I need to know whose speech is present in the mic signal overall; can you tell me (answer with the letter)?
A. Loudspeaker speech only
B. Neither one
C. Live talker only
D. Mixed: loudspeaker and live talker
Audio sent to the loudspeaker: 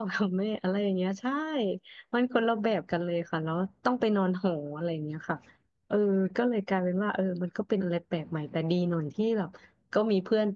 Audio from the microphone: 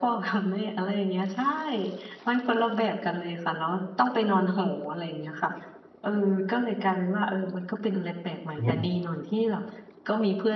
D